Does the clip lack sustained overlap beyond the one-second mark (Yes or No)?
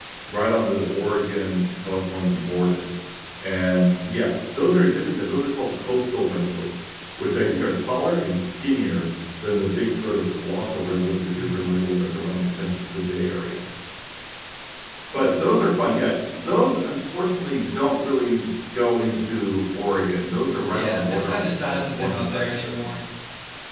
No